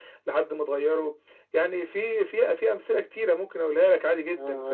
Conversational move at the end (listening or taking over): taking over